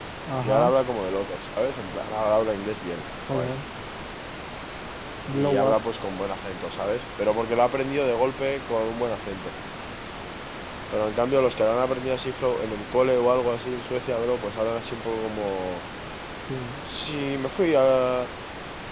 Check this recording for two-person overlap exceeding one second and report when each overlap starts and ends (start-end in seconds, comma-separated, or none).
none